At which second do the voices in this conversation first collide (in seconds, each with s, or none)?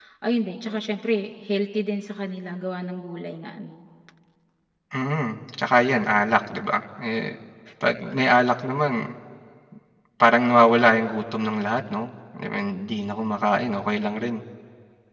none